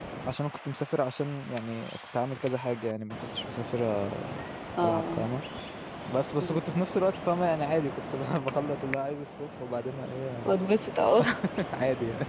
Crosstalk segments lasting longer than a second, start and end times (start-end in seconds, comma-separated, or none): none